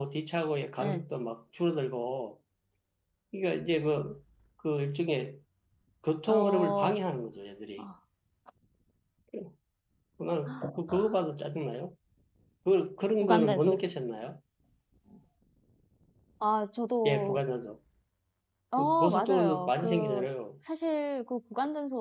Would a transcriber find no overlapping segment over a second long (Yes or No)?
No